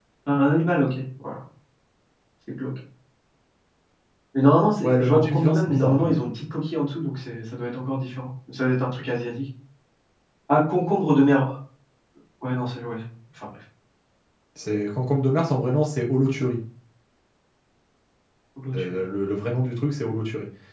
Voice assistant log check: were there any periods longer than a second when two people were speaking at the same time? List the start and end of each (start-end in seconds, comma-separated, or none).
4.8-6.2